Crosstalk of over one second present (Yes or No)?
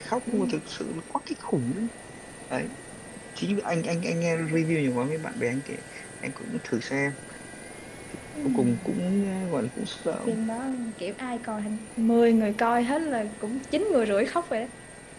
No